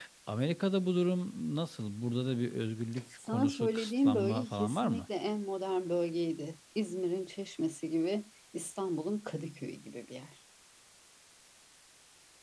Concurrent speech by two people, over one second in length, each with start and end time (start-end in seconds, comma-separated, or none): 3.3-5.0